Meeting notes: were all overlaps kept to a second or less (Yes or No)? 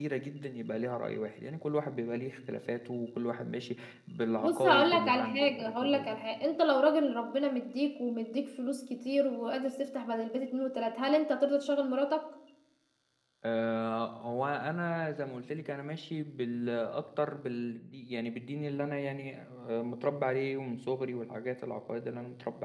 No